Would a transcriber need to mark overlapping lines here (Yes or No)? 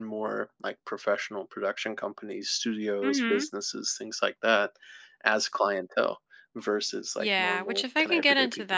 Yes